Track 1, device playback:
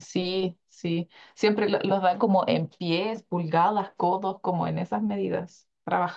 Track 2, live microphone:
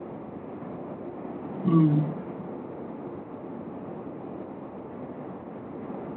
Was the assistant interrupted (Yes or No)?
Yes